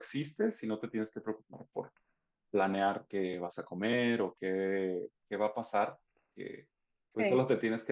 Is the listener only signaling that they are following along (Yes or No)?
Yes